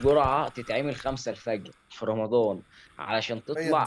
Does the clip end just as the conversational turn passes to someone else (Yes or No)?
No